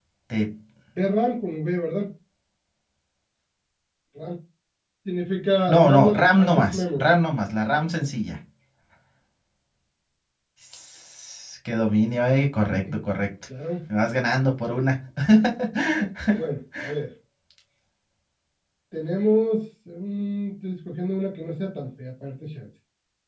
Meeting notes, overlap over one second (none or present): present